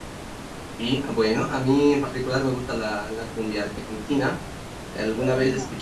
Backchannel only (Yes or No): Yes